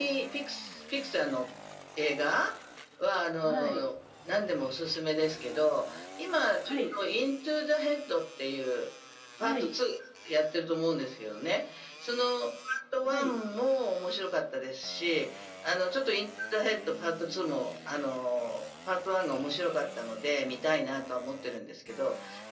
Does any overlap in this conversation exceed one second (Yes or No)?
No